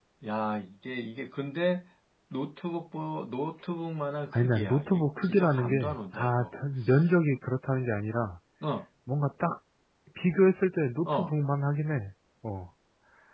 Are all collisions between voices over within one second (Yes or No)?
No